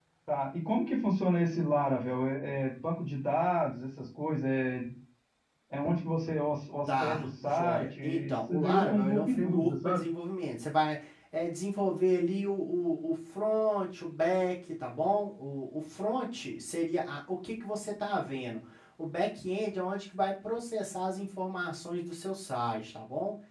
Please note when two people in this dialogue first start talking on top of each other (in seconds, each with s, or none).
6.9 s